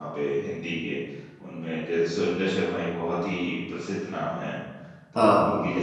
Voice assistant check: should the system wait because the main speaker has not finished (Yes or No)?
Yes